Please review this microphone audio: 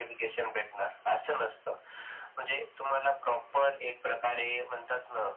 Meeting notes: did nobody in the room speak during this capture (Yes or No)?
Yes